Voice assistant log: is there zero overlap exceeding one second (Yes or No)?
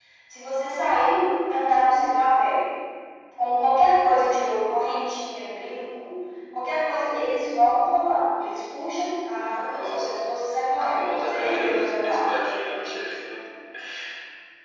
No